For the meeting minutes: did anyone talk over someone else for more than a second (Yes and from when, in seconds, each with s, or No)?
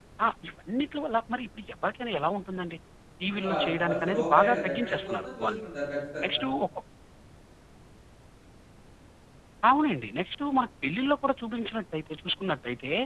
Yes, from 3.3 s